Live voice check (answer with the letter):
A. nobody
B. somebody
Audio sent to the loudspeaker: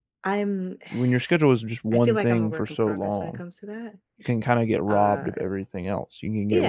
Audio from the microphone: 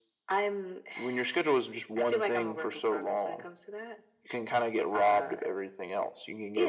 A